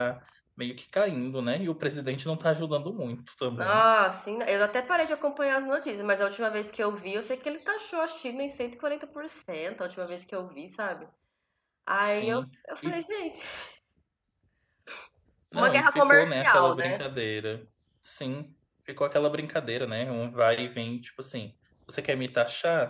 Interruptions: present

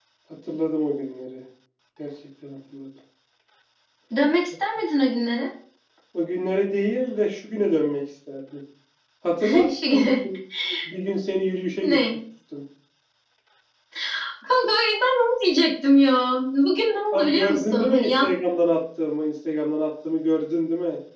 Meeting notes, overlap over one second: present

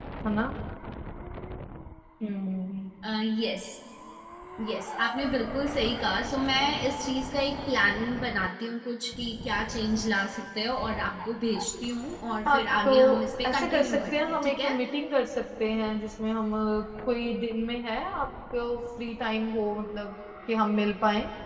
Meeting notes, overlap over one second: present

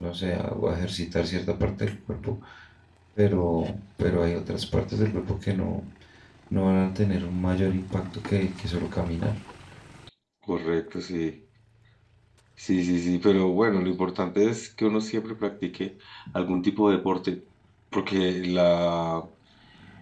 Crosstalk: none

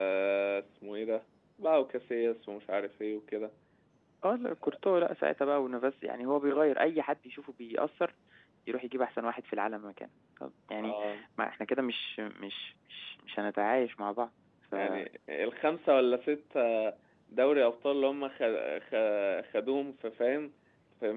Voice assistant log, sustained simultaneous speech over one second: none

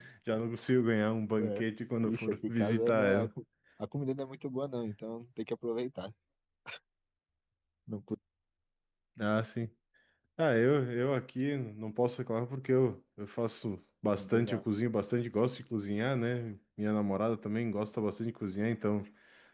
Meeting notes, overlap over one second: present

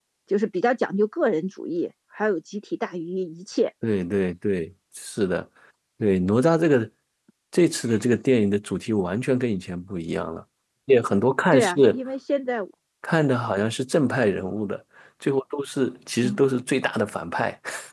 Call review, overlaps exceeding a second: none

